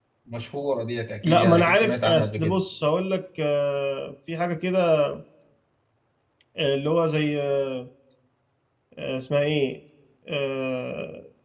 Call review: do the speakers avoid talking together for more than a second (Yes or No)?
No